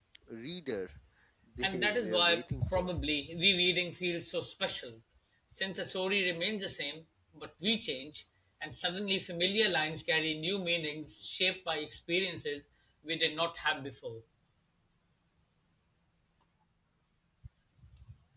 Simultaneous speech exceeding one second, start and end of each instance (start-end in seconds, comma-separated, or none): 1.6-2.9